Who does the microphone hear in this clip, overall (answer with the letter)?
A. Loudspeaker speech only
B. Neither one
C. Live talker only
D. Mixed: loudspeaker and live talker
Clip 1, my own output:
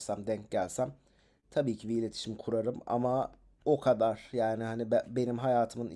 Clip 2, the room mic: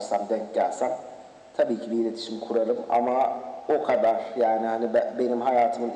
A